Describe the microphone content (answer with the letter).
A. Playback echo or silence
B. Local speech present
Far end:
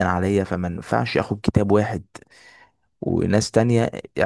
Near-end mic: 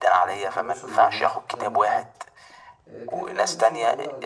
B